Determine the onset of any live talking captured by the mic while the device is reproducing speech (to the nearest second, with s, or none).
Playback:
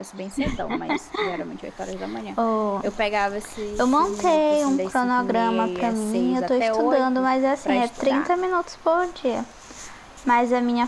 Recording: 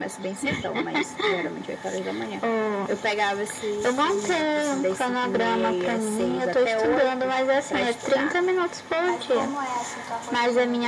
9 s